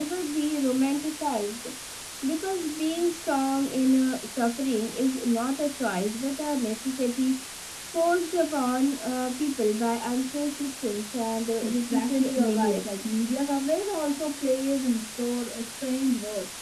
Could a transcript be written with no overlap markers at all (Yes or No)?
No